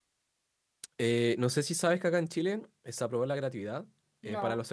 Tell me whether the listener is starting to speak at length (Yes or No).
No